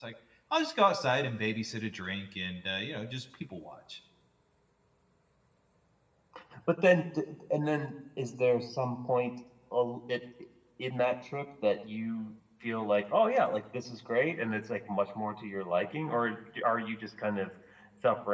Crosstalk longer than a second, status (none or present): none